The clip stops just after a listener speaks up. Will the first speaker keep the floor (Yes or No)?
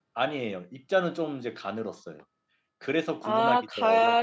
No